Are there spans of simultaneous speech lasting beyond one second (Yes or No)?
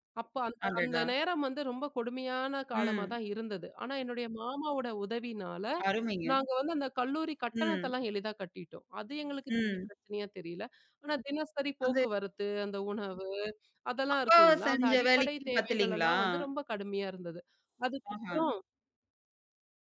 Yes